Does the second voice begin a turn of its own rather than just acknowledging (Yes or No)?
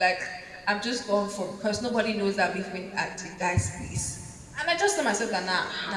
No